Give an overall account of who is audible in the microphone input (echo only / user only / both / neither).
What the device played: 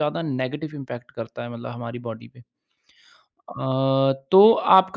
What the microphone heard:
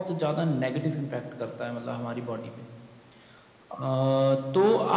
echo only